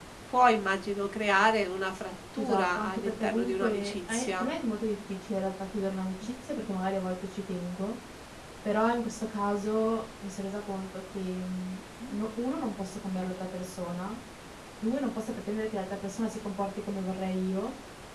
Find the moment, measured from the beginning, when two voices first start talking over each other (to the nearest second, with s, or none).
2 s